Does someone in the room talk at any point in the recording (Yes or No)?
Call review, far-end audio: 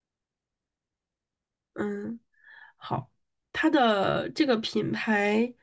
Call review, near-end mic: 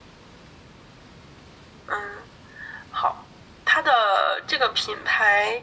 No